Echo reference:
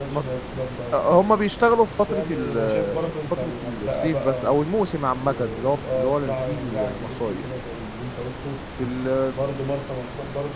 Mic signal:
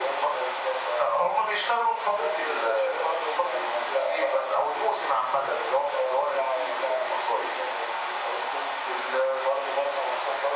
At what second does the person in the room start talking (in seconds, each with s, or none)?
none